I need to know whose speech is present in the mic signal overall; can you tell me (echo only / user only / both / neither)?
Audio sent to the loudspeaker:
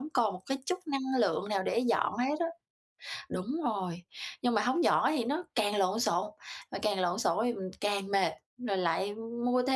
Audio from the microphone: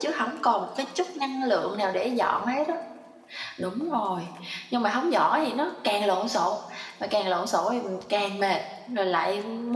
echo only